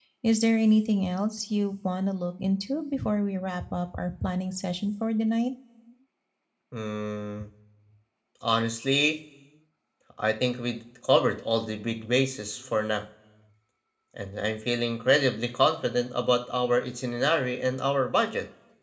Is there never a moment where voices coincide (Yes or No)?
Yes